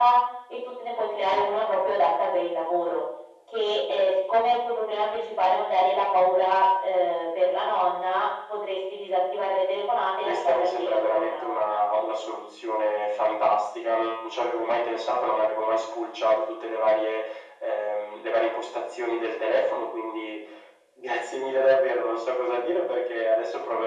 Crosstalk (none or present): present